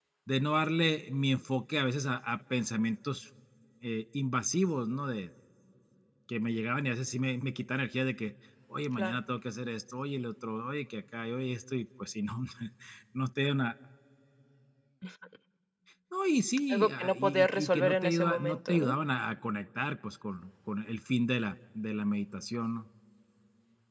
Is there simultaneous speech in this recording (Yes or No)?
Yes